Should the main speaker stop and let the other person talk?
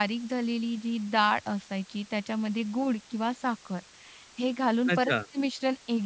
No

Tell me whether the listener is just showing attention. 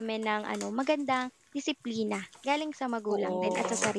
No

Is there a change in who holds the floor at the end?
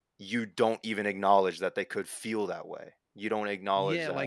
Yes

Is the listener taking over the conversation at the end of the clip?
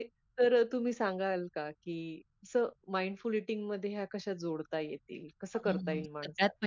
Yes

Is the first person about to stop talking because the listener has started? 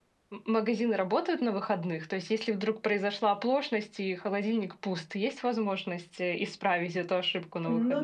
Yes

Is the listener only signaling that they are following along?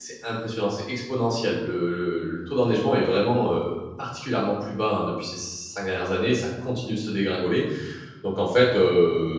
Yes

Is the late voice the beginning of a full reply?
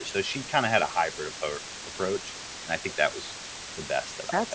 Yes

